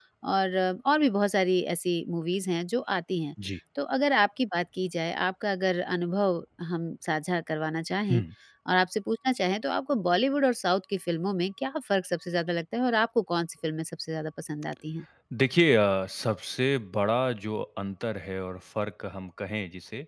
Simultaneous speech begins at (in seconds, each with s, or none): none